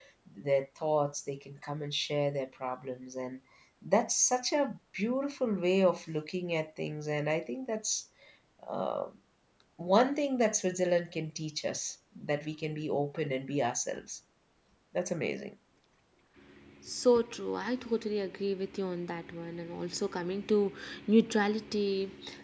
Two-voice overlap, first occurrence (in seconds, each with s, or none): none